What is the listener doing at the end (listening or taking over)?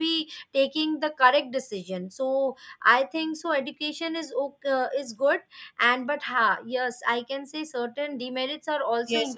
taking over